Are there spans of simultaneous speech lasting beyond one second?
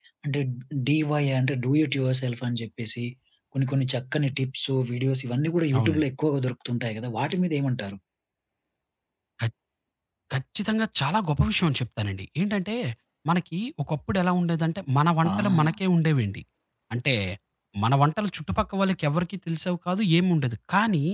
No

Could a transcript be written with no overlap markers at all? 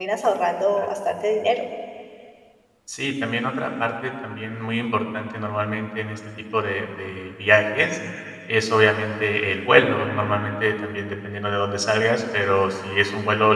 Yes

